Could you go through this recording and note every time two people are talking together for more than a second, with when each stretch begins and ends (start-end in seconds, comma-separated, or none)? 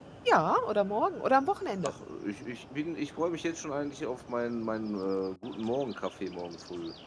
none